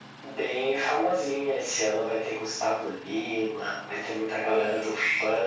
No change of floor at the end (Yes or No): Yes